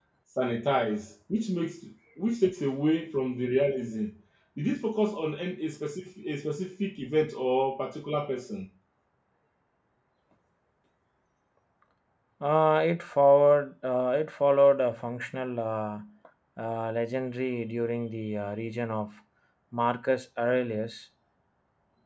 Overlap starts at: none

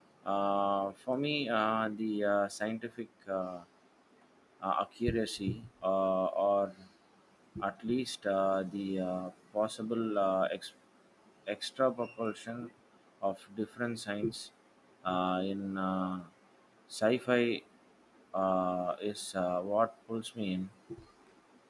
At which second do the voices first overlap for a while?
none

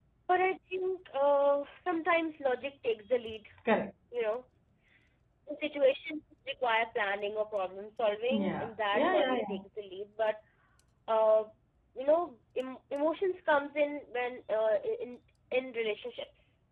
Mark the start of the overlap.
8.3 s

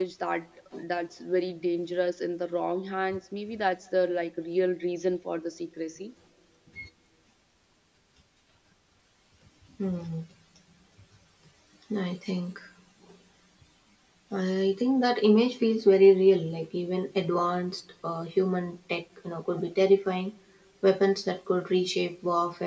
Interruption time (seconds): none

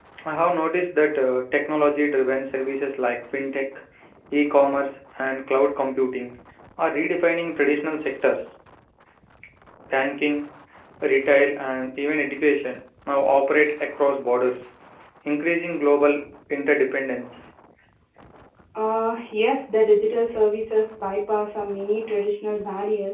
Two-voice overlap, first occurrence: none

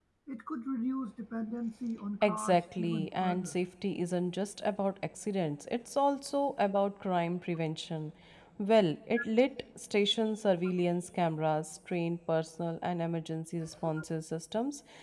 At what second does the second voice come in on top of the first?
2.2 s

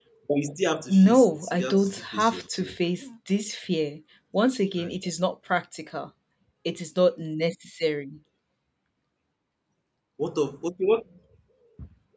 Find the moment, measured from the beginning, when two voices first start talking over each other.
0.9 s

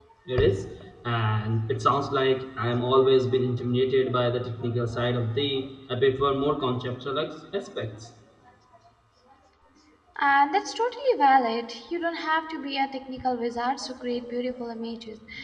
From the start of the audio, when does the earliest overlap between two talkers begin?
none

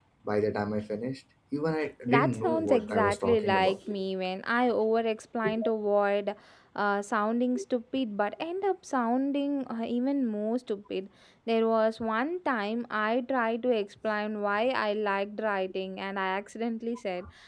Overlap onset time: 2.1 s

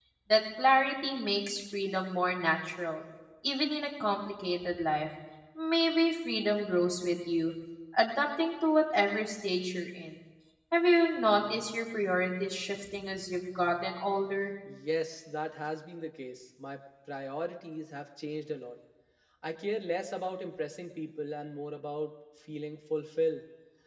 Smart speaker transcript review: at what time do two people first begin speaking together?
none

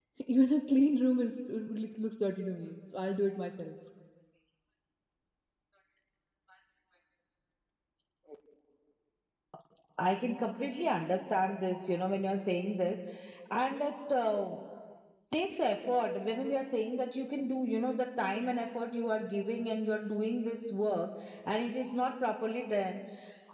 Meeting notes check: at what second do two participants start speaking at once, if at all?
none

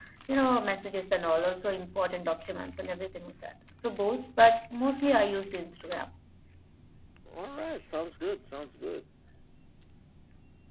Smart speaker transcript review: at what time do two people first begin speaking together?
none

